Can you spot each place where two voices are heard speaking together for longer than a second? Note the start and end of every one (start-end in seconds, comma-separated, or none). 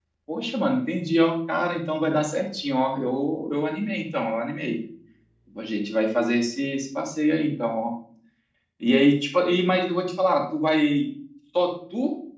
none